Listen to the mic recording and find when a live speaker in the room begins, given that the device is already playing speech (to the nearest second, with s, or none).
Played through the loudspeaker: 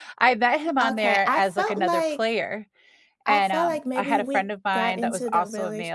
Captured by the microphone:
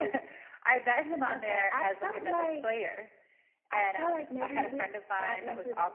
none